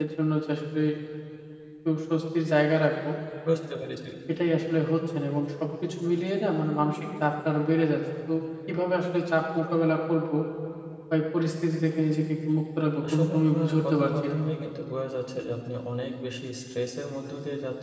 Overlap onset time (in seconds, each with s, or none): 13.0 s